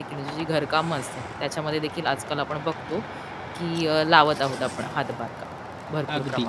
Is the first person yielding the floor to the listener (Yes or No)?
Yes